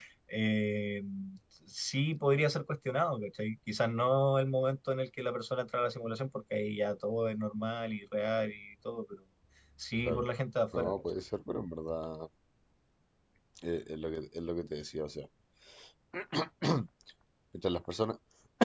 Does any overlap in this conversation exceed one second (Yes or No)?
No